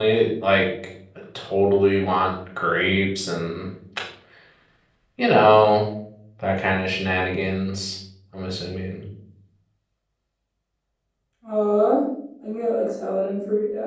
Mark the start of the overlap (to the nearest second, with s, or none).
none